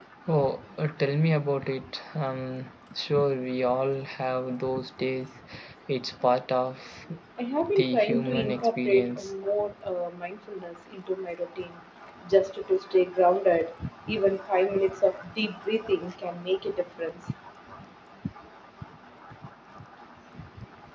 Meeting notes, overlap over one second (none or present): present